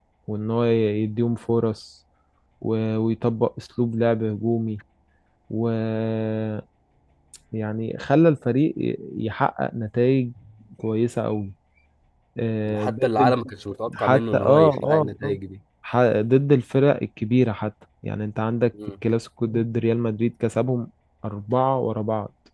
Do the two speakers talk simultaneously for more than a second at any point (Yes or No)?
Yes